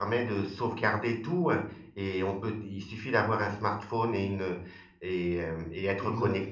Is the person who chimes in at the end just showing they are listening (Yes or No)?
Yes